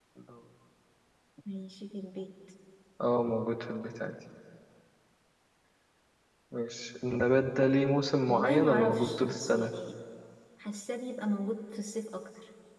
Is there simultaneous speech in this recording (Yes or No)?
Yes